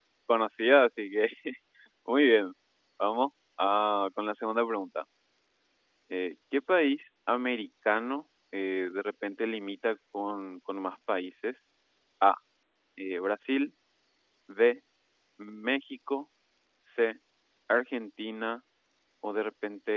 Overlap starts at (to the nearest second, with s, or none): none